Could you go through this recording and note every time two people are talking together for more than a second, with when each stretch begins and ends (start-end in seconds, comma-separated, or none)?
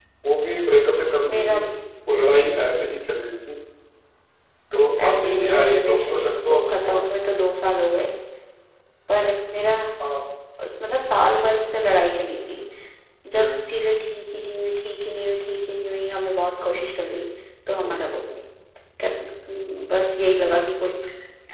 5.1-7.0